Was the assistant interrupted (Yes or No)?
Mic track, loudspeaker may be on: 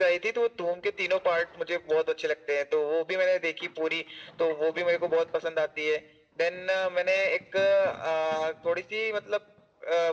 No